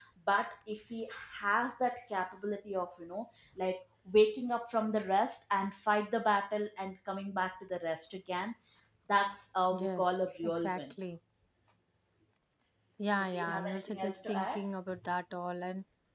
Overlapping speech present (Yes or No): Yes